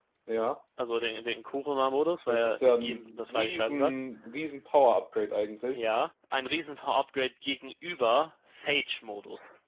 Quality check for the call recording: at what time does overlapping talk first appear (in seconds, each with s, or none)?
2.3 s